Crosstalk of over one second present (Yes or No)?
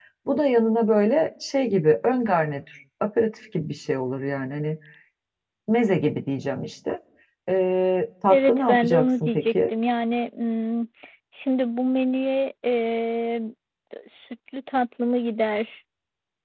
Yes